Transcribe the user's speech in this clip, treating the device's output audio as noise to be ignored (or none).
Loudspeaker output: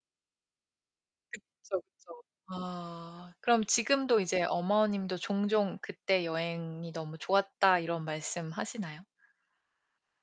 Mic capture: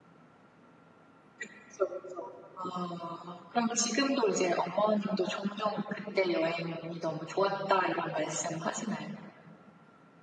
none